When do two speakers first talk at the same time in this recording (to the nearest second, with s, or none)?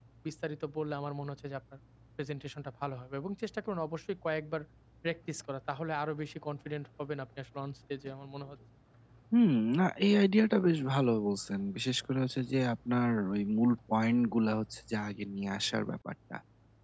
none